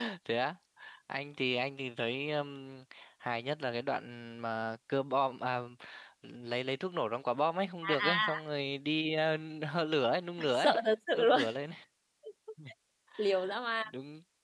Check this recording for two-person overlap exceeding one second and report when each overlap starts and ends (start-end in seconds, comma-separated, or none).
none